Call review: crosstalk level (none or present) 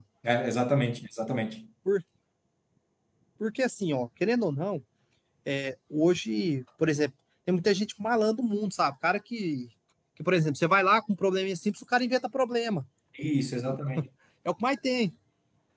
none